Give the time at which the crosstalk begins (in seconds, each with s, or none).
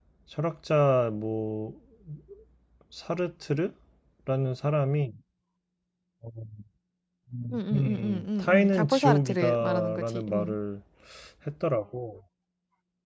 7.5 s